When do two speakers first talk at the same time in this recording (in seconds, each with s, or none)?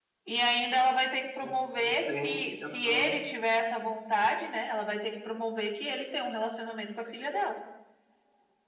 1.4 s